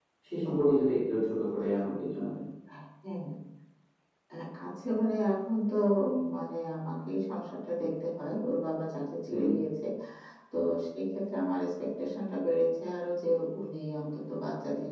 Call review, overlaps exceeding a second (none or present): none